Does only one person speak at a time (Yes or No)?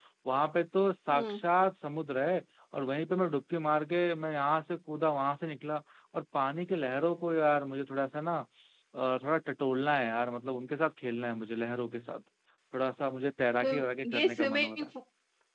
No